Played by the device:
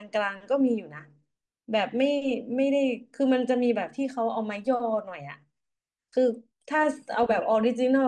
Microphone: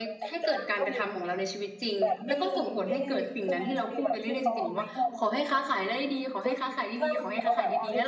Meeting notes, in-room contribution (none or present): present